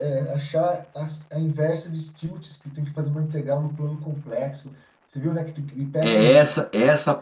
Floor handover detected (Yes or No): Yes